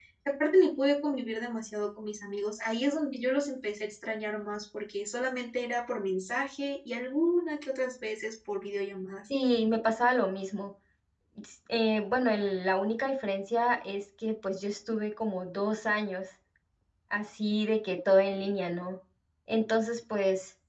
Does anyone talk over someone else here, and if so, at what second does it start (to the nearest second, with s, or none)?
none